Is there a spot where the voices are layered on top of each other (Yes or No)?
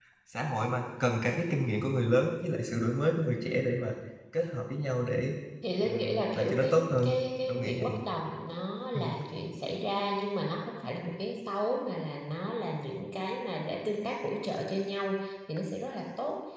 Yes